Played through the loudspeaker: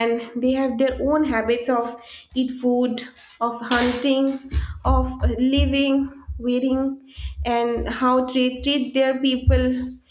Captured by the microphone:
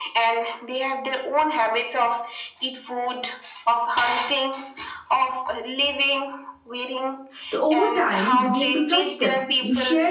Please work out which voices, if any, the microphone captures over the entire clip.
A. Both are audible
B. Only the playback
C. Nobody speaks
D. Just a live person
A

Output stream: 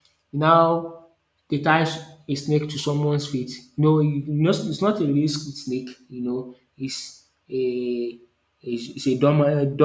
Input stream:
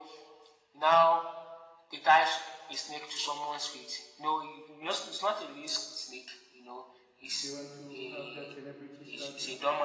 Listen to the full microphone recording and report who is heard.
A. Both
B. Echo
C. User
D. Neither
A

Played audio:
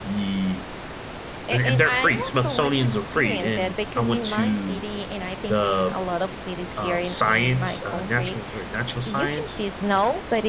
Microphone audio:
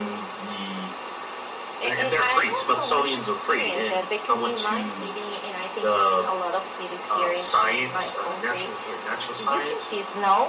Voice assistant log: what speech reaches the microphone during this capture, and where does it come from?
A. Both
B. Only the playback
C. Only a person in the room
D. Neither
B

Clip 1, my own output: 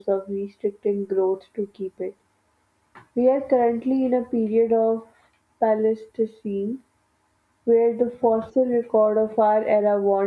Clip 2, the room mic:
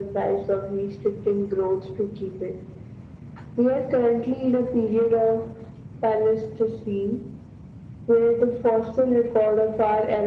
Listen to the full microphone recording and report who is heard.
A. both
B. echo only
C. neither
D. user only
B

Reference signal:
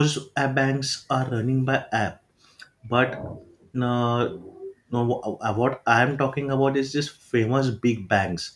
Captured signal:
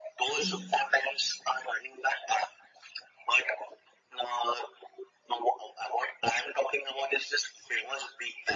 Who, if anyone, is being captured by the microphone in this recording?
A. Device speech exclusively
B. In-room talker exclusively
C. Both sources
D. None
C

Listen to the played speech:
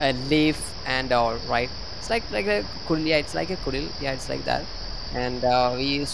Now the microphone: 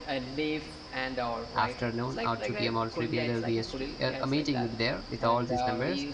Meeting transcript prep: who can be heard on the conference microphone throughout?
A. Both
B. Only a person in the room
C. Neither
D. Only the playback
A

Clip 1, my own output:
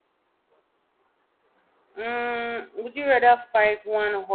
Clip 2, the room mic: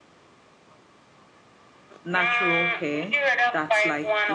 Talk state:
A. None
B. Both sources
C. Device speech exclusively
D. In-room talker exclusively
B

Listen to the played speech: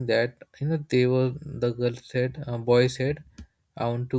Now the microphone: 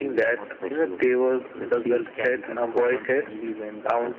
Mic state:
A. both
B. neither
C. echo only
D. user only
A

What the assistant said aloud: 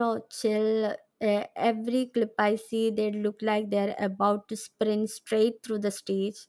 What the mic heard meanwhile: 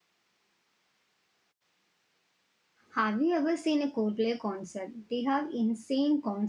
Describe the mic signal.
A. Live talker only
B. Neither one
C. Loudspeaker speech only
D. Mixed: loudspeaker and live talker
A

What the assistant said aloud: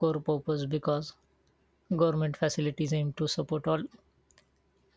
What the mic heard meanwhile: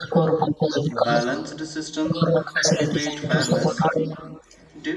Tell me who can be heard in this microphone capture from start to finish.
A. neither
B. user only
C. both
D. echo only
C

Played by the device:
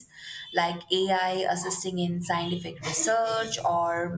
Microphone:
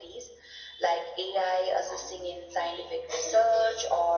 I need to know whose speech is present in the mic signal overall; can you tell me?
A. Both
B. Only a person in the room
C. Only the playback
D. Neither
C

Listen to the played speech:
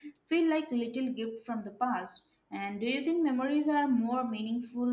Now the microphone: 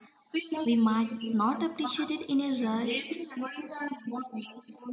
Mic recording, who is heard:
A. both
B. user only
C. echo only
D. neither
A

